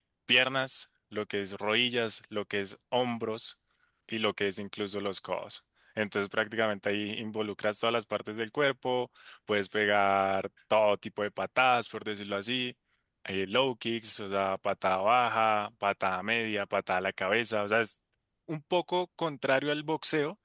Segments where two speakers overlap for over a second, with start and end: none

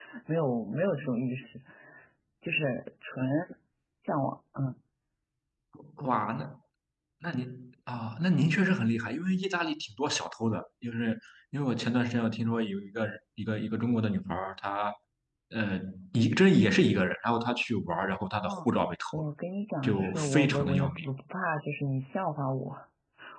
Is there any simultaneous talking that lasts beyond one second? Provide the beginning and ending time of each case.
19.8-21.0

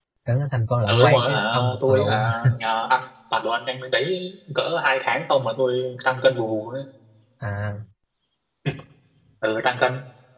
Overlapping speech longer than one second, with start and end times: 0.9-2.5

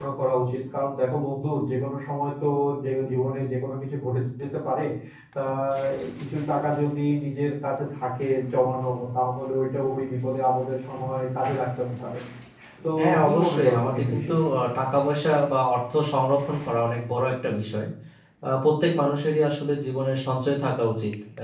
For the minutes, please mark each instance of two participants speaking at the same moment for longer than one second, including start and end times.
13.0-14.4

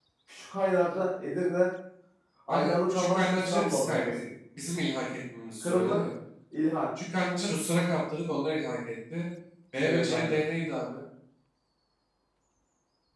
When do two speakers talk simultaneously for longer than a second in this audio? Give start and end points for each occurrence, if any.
2.5-4.2

